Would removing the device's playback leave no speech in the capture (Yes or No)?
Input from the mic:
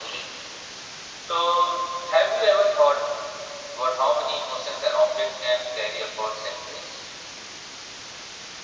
Yes